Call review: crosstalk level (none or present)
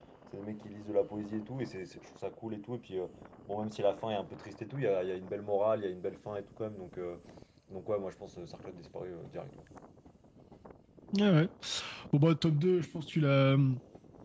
none